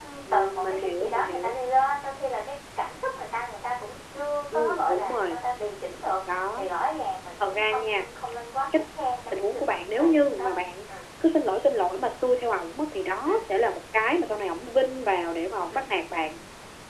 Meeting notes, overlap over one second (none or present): present